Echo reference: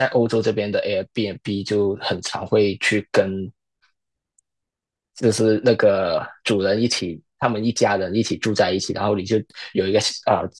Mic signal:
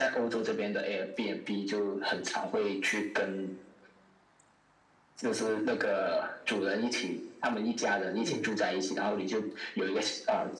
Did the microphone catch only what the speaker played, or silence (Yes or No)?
No